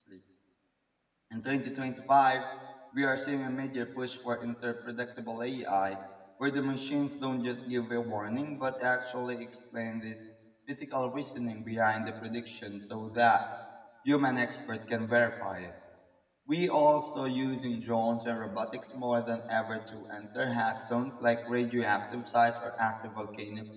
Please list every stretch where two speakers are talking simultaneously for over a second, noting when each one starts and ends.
none

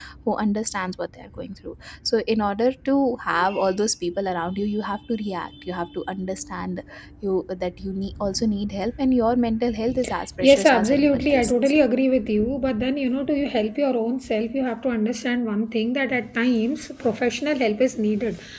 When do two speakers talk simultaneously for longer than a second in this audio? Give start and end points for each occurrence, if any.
10.4-11.7

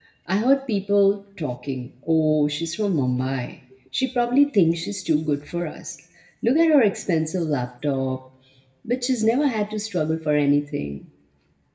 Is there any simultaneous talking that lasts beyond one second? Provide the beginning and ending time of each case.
none

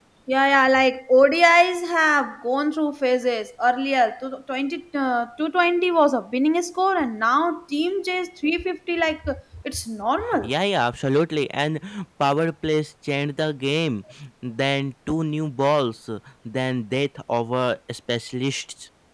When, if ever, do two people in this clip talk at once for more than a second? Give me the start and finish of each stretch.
none

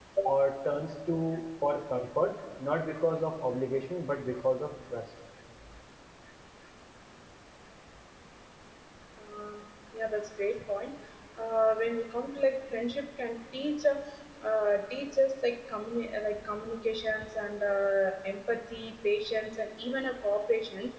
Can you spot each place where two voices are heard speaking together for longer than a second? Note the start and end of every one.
none

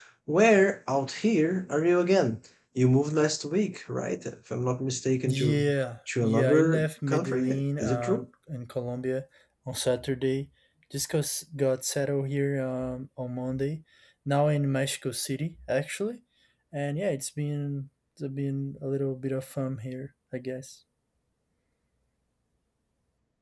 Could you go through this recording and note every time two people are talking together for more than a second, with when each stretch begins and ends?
6.2-8.2

